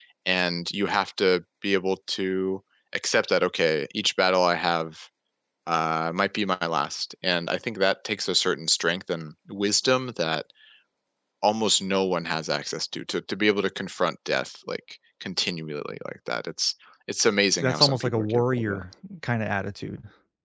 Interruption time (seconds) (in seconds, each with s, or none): 17.6 s